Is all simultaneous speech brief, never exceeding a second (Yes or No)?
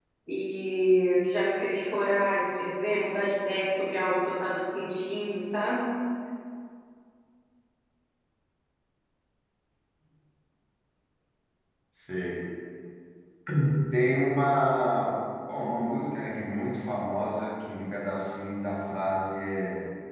Yes